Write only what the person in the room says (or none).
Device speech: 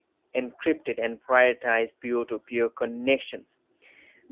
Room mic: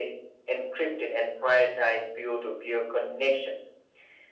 none